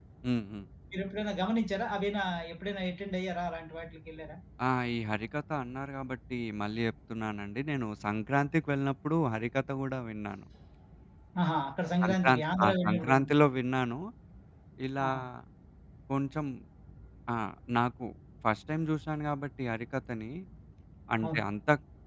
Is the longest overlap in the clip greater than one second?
Yes, from 12.0 s

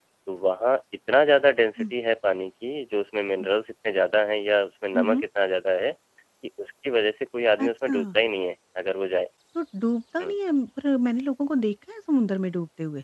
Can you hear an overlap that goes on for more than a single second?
No

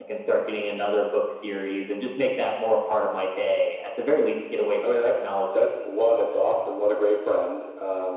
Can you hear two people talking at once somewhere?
Yes, from 4.8 s

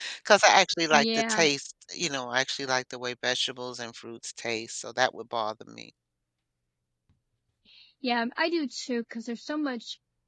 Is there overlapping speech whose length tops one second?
No

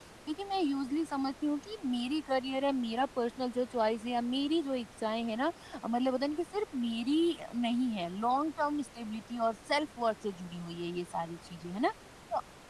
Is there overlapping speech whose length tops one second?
No

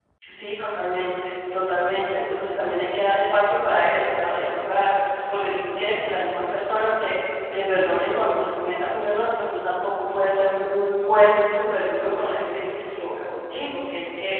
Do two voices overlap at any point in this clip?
No

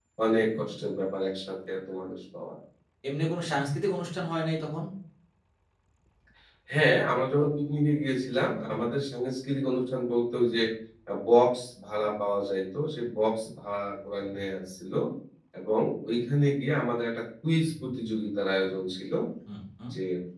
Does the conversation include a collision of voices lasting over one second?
No

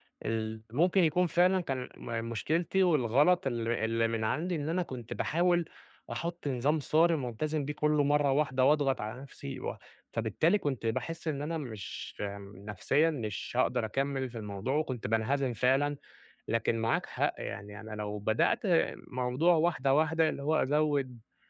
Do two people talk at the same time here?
No

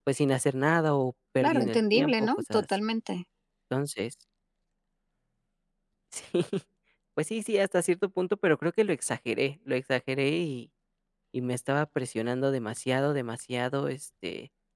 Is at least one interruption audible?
Yes, from 1.4 s

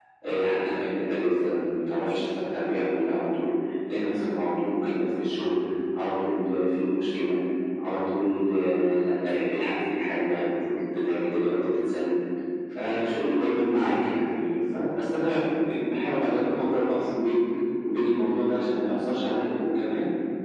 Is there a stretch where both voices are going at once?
No

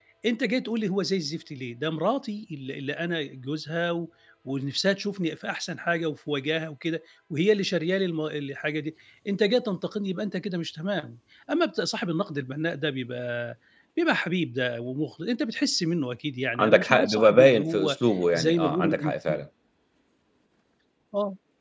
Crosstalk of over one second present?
Yes, from 16.6 s

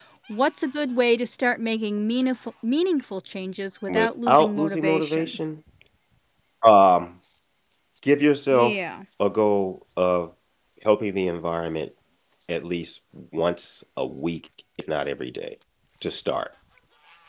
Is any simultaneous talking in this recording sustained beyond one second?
Yes, from 3.9 s

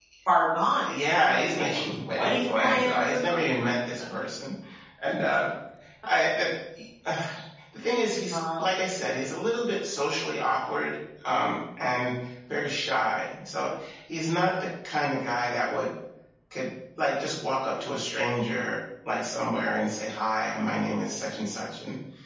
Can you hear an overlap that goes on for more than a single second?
Yes, from 0.8 s

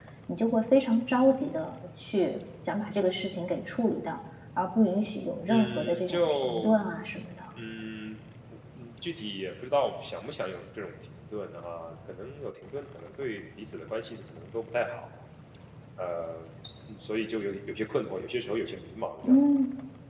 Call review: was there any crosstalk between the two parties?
Yes, from 5.5 s

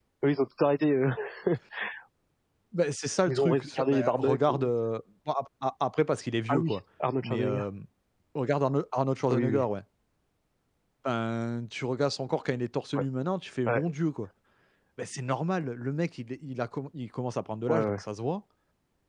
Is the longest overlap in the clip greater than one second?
Yes, from 3.3 s

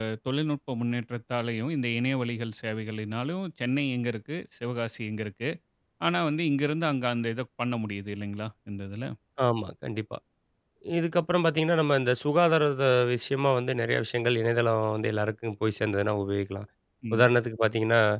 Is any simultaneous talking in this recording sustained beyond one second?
No

